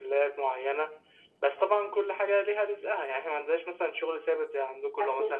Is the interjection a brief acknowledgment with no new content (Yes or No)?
Yes